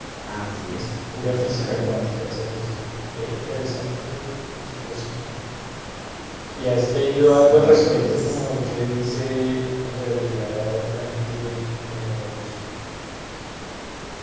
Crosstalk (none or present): present